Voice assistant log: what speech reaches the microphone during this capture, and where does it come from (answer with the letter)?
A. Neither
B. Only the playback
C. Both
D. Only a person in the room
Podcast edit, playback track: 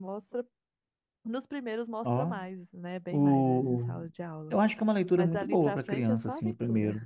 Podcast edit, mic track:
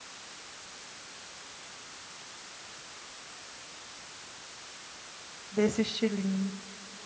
D